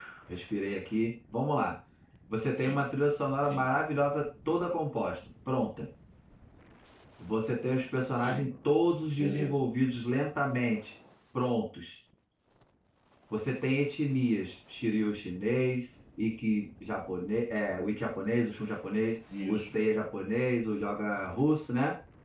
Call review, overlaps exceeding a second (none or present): none